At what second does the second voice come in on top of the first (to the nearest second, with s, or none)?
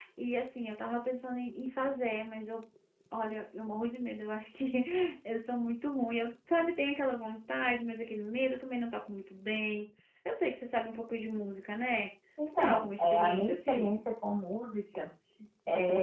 13 s